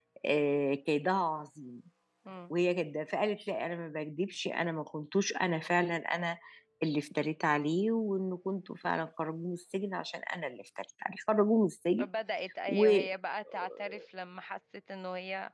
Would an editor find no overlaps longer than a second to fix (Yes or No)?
Yes